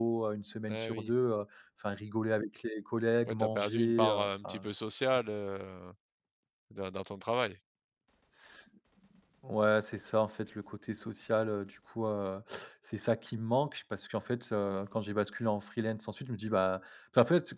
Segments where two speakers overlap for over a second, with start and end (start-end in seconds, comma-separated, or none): 3.2-4.6